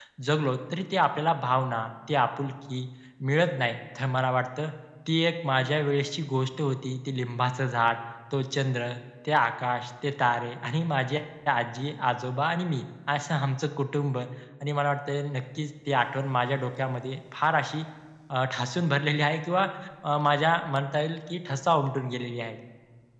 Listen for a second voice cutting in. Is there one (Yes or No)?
No